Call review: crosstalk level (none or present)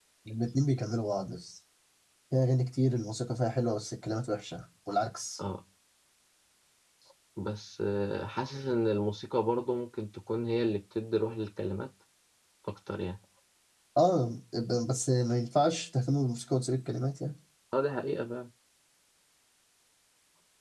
none